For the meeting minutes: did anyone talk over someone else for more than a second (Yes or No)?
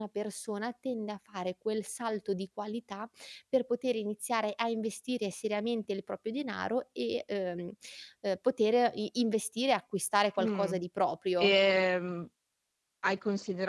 No